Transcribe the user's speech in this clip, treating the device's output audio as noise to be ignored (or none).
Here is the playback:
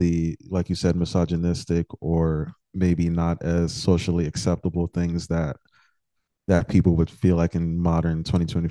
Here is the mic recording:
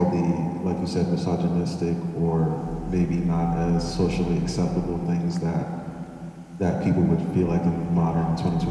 none